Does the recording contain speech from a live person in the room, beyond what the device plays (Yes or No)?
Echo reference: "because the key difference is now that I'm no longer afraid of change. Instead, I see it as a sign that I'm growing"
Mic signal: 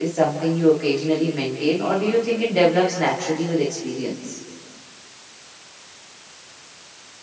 Yes